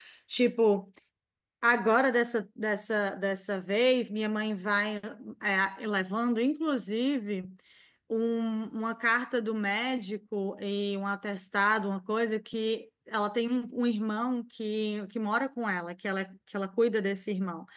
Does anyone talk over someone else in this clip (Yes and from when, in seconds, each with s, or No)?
No